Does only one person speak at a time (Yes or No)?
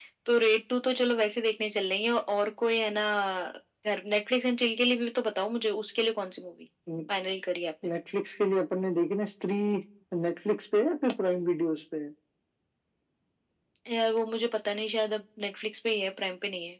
Yes